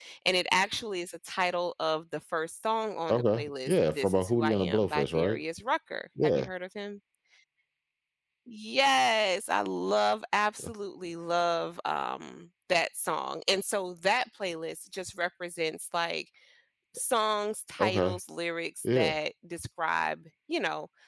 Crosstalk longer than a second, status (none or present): present